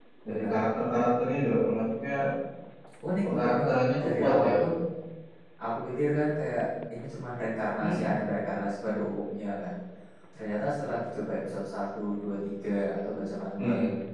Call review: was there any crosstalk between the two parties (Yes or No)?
Yes